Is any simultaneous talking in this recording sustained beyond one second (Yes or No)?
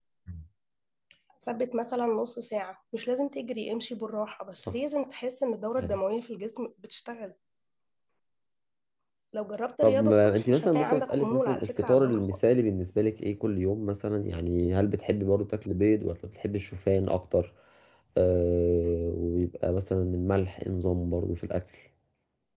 Yes